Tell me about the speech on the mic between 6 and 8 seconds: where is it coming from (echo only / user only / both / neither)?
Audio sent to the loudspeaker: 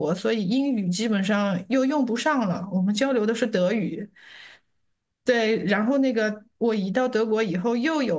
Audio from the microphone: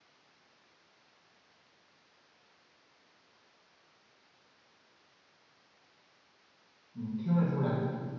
user only